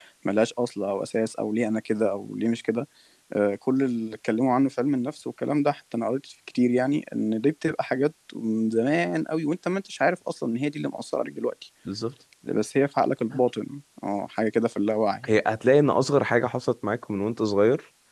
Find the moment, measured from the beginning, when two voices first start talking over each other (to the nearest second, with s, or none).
none